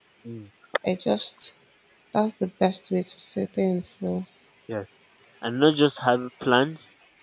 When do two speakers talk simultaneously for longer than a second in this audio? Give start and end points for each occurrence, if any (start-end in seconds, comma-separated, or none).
none